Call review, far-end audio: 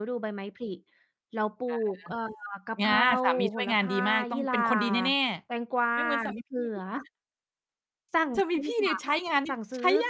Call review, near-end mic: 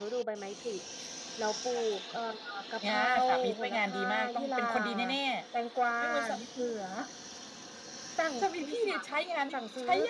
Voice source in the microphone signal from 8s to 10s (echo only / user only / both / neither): echo only